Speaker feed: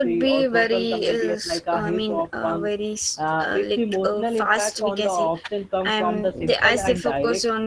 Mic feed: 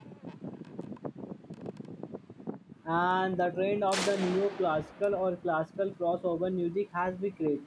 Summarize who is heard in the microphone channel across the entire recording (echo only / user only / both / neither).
user only